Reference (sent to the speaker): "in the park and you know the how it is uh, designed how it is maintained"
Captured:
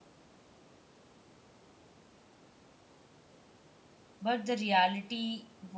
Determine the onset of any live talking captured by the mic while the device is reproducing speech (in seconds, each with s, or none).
4.2 s